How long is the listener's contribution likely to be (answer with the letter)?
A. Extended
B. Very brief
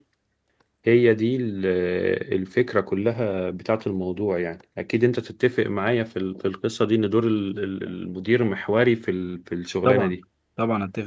A